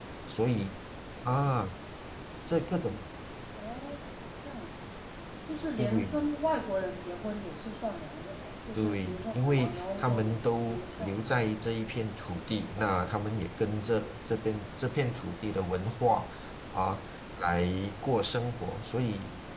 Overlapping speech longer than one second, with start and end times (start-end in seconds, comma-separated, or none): 8.8-11.6